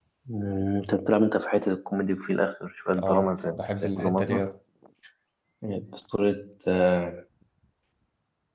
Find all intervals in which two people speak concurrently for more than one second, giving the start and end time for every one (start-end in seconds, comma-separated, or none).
3.0-4.5